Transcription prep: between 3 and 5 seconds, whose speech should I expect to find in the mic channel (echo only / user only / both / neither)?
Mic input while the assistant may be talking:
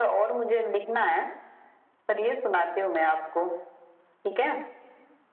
echo only